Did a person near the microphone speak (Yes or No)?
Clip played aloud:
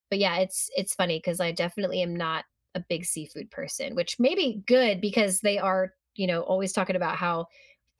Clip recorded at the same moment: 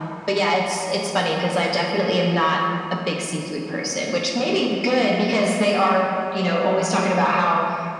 No